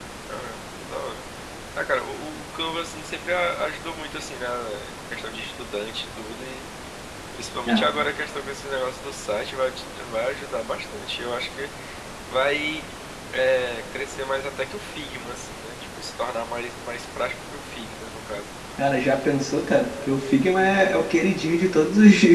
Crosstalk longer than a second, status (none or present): none